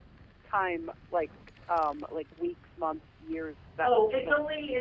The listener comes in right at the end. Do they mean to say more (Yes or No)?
Yes